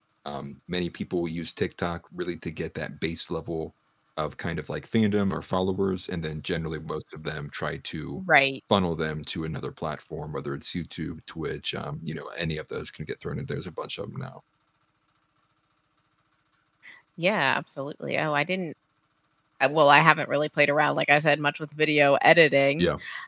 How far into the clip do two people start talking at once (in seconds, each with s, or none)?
none